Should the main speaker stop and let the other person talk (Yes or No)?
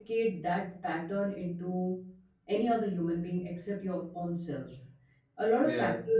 No